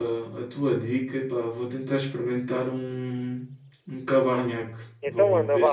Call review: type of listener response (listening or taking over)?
taking over